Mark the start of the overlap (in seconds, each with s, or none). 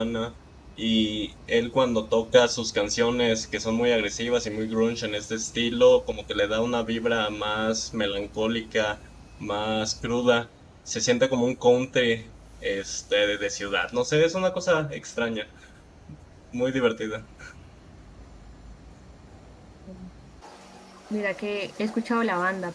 none